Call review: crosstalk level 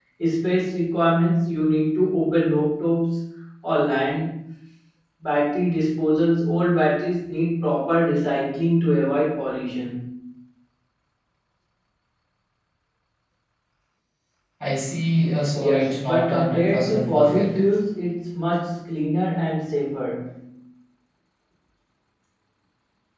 present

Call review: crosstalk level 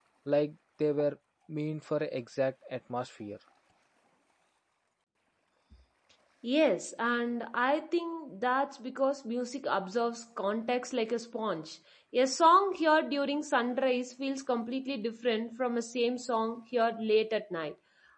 none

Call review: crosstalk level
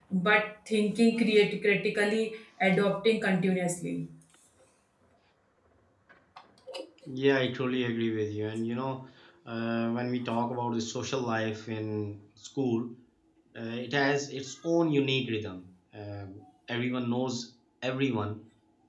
none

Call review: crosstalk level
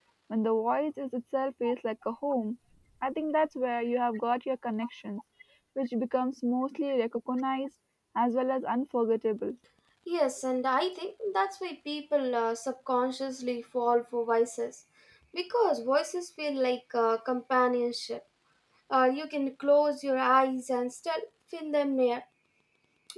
none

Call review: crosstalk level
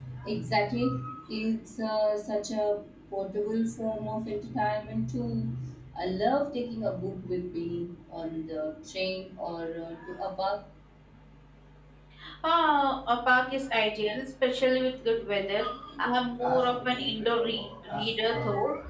present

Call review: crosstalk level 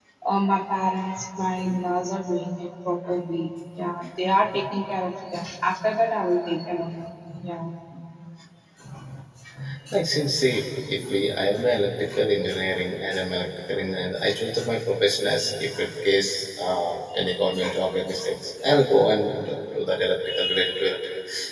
none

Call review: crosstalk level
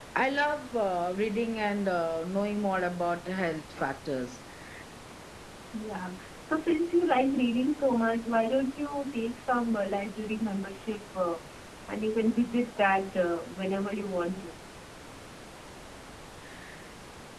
none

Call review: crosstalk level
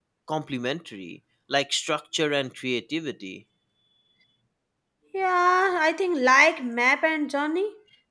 none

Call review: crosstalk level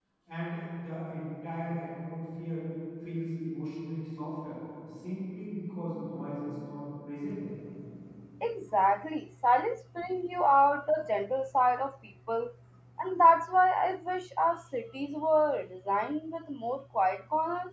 none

